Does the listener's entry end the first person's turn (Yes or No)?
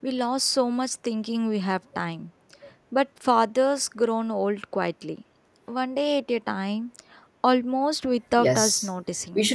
Yes